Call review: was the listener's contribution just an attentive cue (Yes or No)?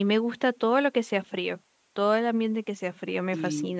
No